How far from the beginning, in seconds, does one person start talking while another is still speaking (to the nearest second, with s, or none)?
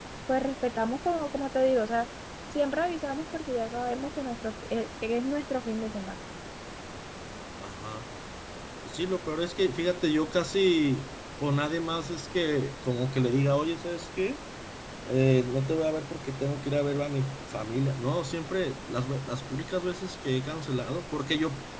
none